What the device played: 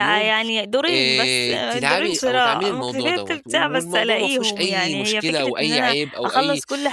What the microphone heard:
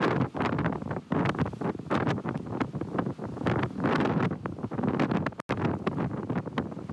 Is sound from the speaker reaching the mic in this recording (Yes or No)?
No